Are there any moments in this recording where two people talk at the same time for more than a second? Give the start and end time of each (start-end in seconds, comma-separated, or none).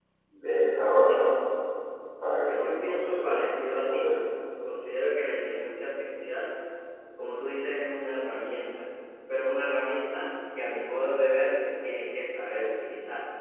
2.5-4.1